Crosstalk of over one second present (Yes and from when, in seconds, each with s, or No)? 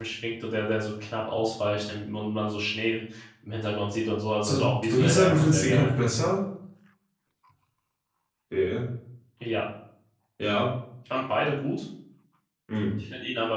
Yes, from 4.4 s